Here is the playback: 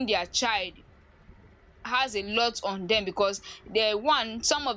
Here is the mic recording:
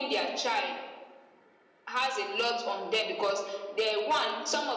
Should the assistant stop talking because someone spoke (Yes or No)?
No